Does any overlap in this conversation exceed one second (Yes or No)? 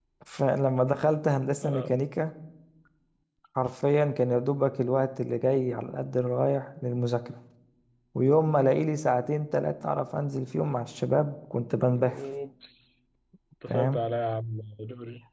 No